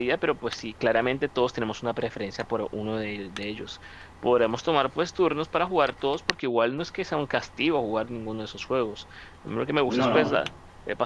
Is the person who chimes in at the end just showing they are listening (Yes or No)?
Yes